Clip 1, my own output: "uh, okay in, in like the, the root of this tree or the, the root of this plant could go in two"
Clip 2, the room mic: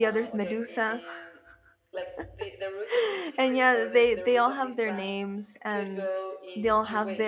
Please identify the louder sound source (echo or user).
user